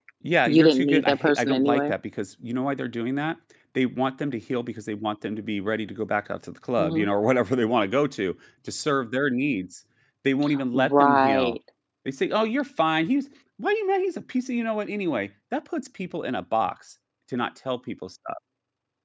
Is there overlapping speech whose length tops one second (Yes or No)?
Yes